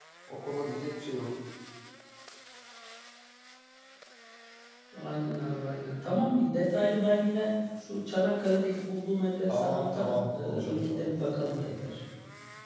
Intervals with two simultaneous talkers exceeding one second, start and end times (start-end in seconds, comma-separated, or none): 9.5-11.1